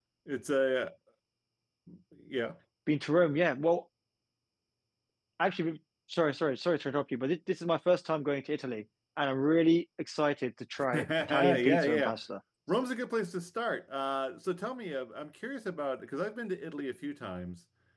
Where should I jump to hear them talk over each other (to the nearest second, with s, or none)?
11 s